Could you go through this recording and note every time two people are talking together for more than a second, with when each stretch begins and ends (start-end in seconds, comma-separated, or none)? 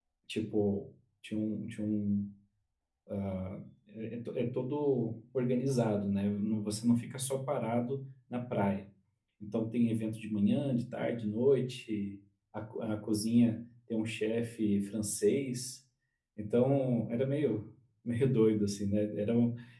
none